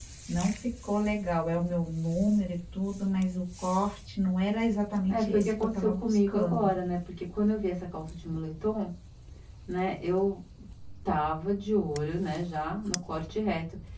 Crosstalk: present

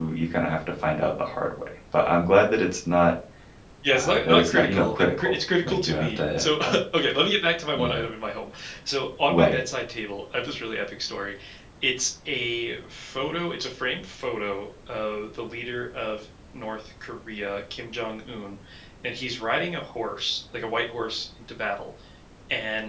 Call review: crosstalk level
present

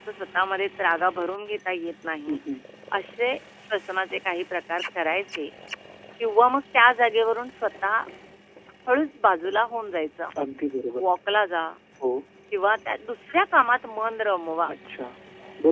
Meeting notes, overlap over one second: none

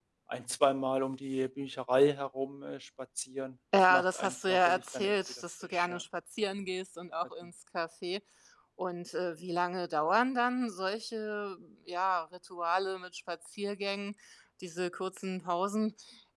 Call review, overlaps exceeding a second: present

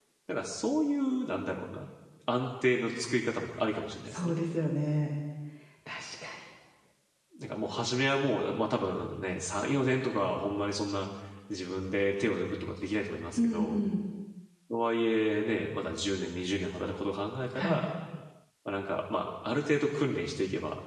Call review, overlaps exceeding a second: none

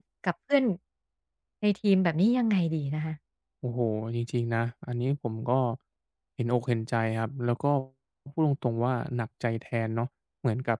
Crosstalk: none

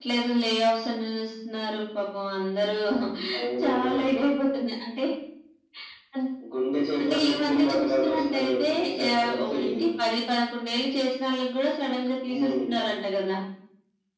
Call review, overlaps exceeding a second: present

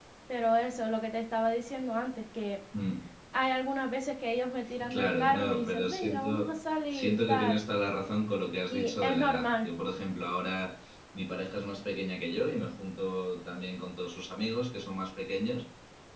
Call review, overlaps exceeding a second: present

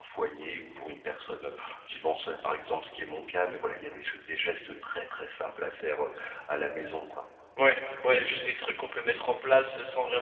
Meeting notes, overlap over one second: none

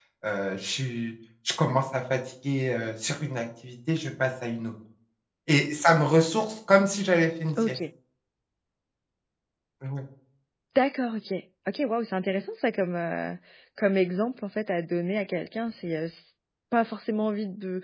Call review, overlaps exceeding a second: none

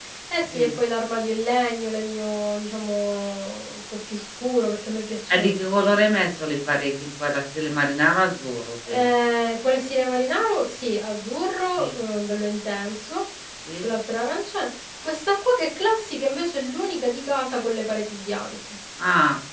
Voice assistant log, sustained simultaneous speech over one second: none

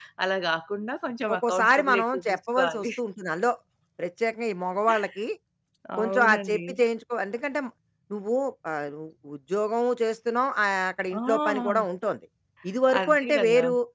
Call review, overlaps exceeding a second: present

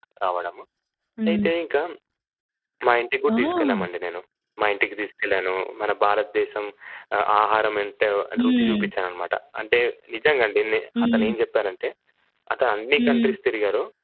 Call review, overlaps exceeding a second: none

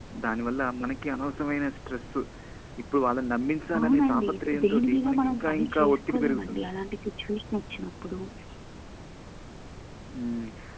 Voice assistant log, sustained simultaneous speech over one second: present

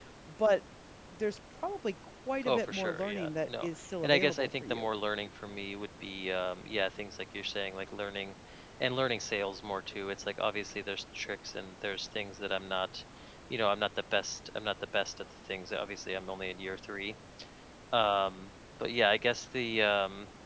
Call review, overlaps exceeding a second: present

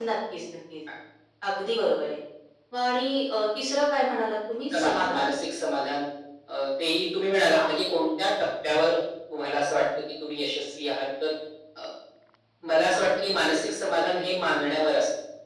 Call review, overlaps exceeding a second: none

